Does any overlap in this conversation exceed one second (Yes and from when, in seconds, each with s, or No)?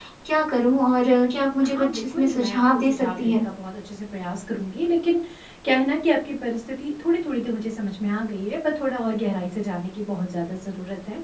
Yes, from 1.6 s